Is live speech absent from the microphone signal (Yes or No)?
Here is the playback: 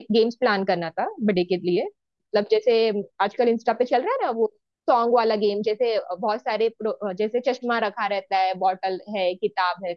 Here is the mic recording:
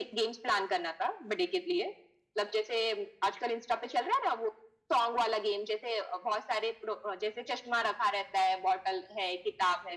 Yes